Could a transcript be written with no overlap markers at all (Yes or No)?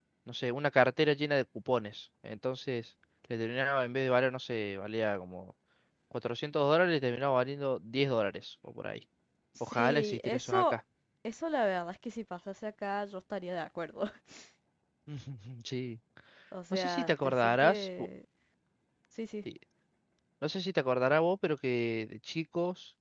No